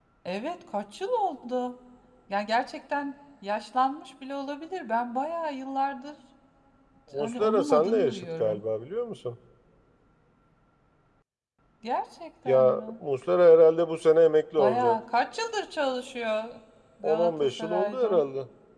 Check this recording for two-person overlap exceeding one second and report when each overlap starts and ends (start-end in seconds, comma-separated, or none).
7.1-8.6, 17.0-18.2